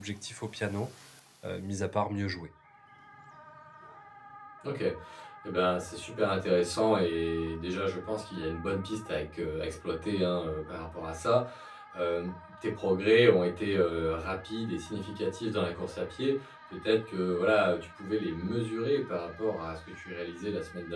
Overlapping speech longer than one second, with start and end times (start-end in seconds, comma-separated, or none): none